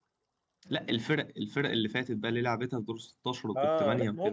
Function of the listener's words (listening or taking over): taking over